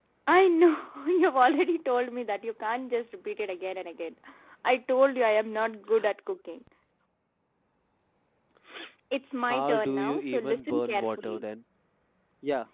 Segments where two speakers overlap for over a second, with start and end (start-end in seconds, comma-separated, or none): 9.5-11.4